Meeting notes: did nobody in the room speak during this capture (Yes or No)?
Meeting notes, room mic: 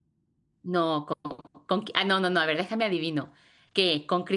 No